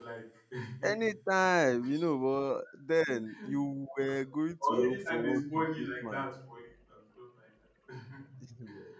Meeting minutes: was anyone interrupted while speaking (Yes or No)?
Yes